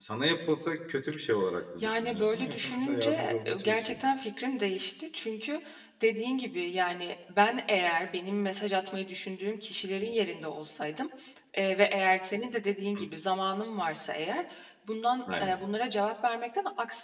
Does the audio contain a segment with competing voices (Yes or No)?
Yes